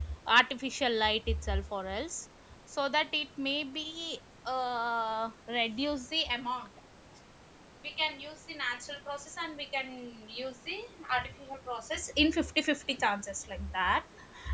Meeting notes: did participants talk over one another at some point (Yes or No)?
No